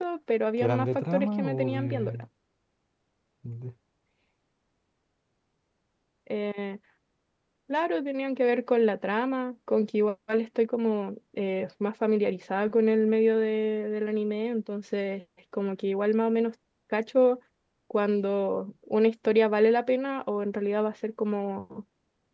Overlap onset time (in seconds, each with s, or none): 0.6 s